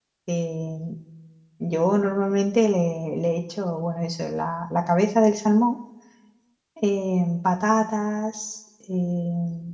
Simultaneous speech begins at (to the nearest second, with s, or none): none